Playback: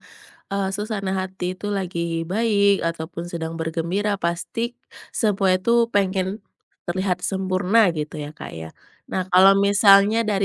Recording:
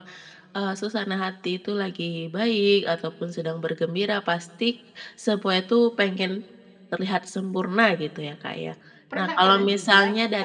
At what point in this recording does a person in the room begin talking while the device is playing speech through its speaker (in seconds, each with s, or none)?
9.1 s